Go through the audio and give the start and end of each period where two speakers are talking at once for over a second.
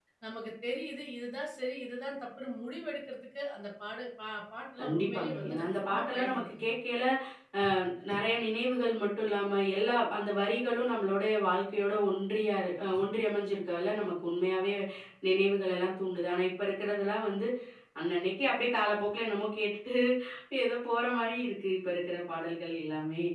4.8-6.7

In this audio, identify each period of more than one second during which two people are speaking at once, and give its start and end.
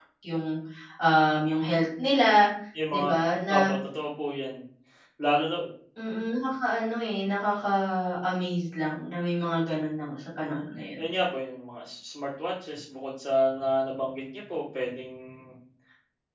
none

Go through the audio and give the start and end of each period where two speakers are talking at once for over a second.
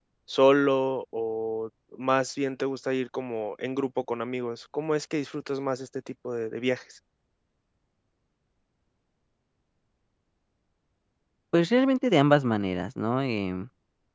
none

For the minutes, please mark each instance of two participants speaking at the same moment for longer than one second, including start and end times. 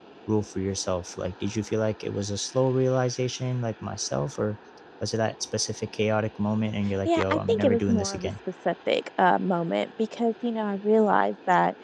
7.0-8.3

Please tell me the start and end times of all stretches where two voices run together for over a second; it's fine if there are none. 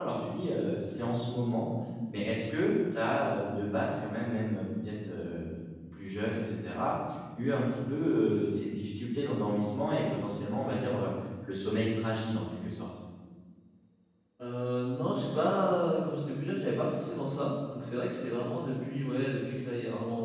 none

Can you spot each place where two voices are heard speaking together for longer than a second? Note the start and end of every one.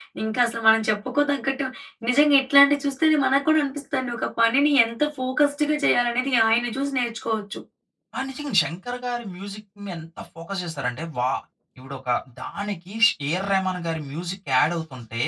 none

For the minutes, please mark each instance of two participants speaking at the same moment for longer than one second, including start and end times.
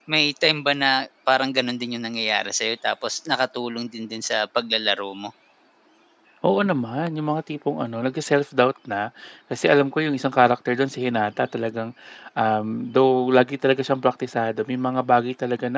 none

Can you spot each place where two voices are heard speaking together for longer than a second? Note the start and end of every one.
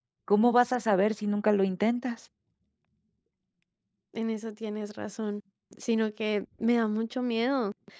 none

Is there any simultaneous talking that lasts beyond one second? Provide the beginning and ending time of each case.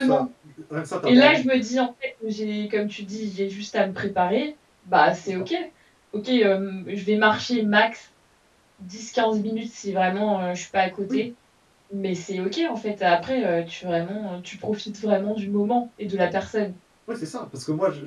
none

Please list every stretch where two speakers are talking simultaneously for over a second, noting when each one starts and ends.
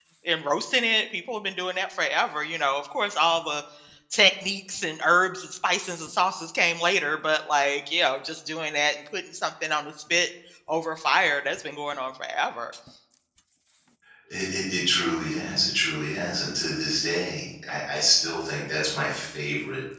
none

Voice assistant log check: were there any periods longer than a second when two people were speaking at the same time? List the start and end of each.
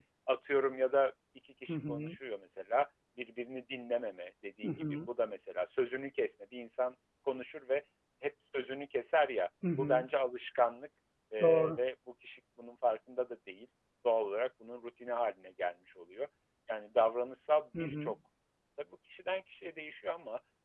none

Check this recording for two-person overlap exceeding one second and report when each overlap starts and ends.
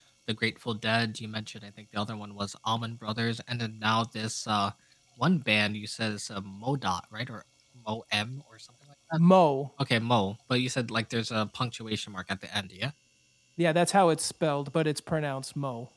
none

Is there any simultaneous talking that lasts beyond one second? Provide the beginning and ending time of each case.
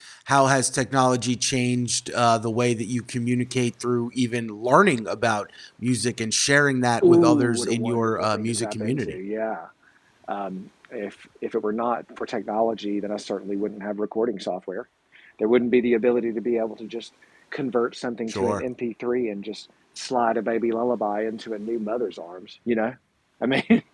7.0-9.2

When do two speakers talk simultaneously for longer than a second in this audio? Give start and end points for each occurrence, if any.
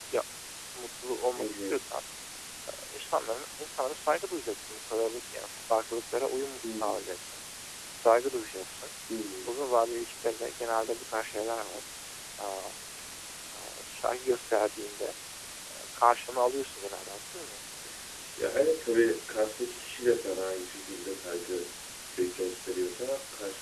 none

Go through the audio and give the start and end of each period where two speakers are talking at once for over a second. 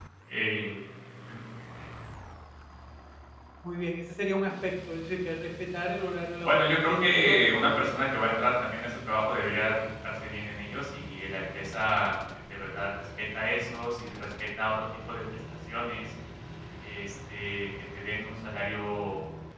6.4-7.8

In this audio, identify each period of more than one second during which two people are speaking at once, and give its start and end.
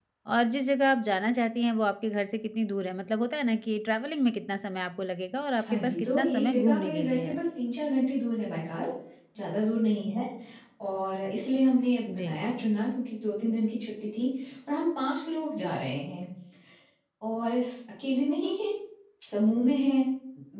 5.7-7.3

